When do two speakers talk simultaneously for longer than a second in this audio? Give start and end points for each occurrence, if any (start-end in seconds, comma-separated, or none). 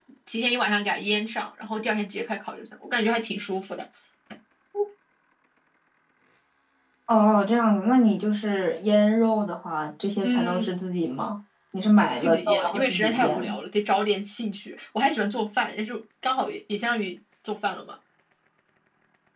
12.2-13.5